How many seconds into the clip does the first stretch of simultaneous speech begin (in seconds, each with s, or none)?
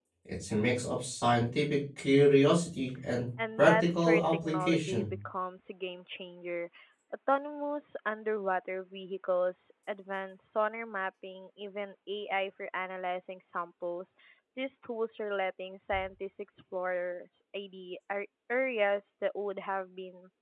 3.6 s